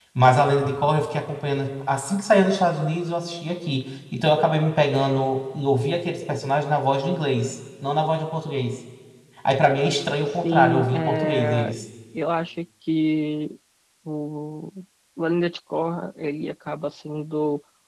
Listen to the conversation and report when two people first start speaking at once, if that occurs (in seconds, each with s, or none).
10.4 s